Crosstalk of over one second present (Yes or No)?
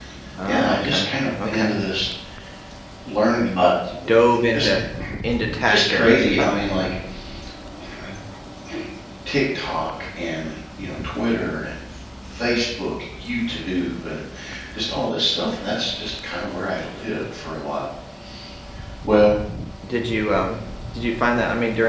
Yes